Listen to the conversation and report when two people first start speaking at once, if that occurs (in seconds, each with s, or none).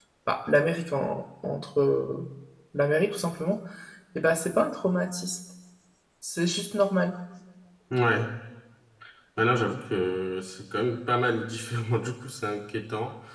none